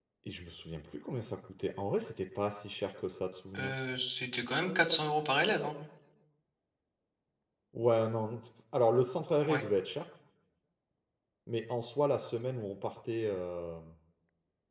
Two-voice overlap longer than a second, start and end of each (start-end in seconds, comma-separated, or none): none